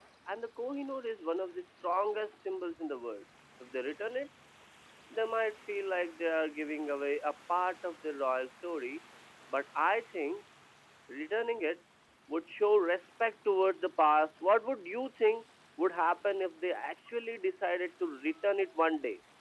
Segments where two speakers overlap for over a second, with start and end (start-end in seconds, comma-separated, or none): none